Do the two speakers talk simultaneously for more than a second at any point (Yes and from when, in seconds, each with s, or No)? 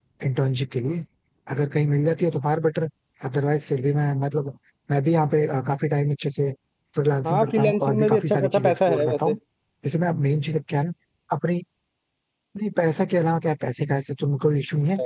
Yes, from 7.2 s